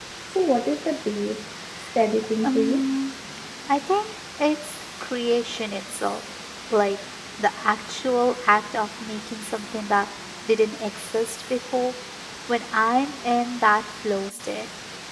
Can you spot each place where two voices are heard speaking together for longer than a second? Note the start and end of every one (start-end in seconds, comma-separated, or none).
none